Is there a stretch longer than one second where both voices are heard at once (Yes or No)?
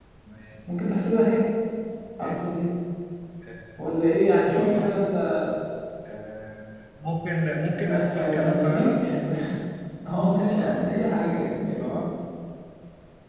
Yes